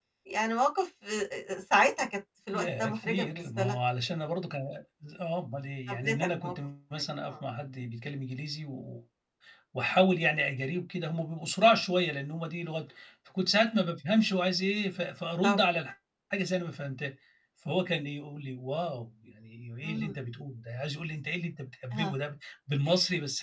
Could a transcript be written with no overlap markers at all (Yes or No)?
No